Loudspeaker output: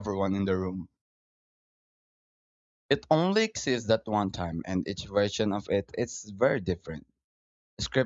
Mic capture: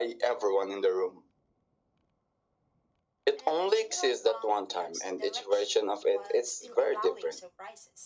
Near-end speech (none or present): present